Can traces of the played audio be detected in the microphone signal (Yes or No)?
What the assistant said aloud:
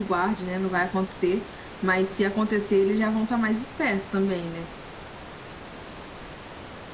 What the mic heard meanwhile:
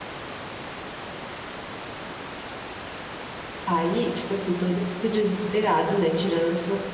No